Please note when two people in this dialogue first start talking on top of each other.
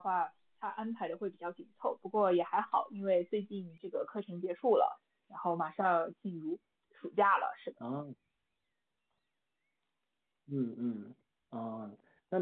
none

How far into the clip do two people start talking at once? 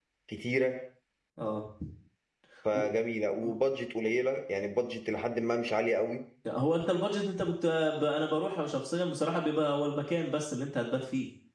none

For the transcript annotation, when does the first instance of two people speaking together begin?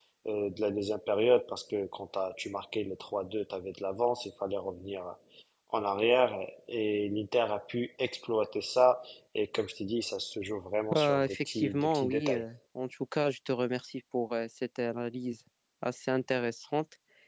11 s

